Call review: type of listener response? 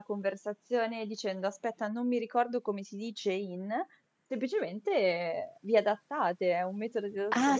taking over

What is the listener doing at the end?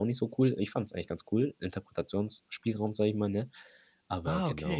taking over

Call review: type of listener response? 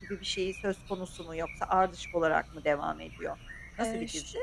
taking over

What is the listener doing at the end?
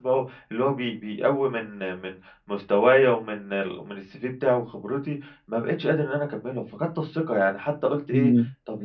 listening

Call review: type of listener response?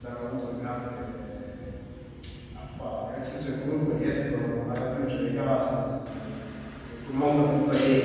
listening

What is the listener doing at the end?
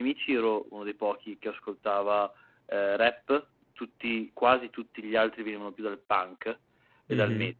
taking over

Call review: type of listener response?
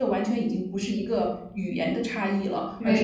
listening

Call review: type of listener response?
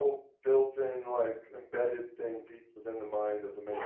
taking over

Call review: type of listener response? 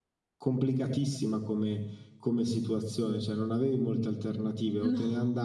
listening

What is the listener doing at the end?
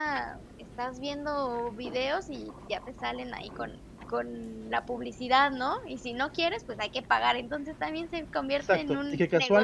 taking over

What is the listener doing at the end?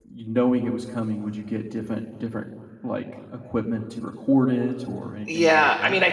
taking over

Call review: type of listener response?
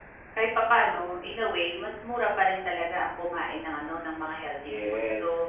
taking over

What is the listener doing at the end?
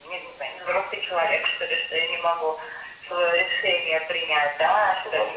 listening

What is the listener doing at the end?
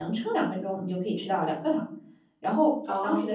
listening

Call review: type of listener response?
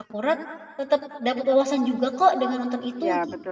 taking over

